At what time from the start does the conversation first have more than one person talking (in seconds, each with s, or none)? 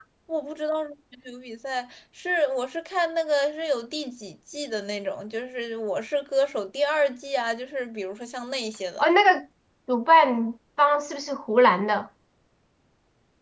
none